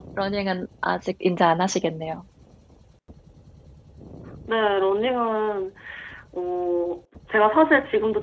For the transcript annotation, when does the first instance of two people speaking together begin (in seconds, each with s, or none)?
none